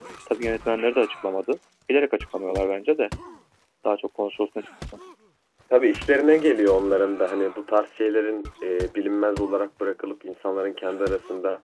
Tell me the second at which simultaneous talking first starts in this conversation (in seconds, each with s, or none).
none